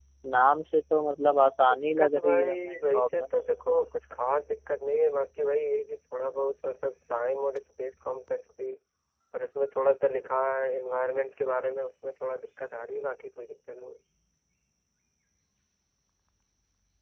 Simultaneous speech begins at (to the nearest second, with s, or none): 2 s